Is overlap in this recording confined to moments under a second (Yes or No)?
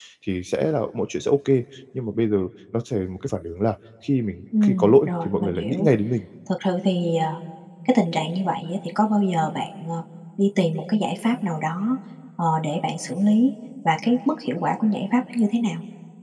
No